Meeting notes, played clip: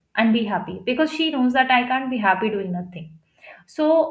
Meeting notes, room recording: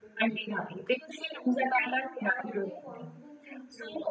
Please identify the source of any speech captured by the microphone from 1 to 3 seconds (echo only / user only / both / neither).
both